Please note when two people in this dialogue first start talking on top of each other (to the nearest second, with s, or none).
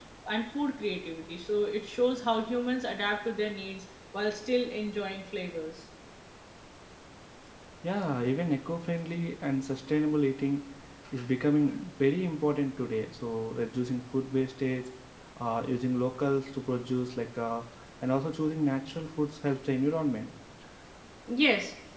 none